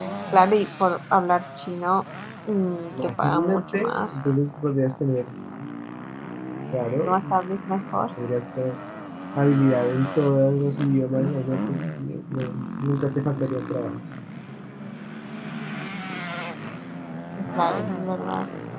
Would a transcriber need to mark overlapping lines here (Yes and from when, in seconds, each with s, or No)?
Yes, from 3.0 s